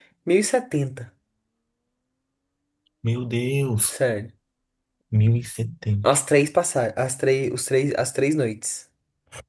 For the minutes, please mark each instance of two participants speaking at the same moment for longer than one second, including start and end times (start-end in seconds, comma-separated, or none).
none